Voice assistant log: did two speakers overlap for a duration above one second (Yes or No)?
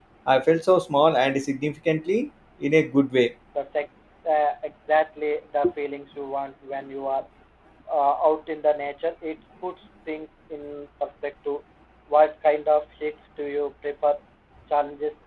No